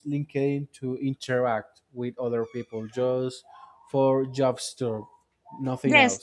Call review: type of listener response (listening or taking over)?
taking over